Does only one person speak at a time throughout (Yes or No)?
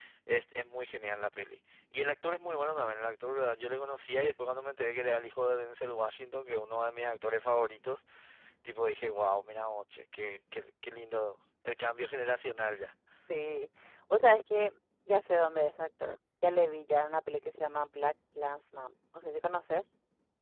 Yes